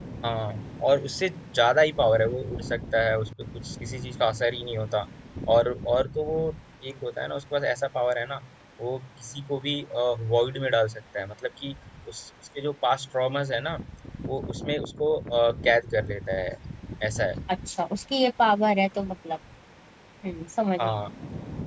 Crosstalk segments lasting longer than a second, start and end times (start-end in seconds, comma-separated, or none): none